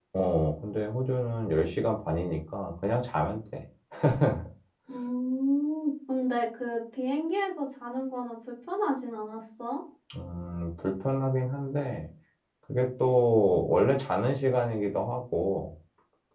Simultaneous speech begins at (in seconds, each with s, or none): none